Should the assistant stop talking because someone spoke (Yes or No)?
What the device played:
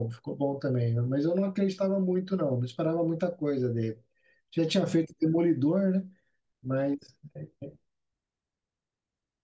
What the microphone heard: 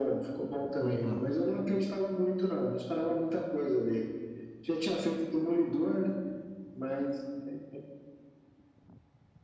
Yes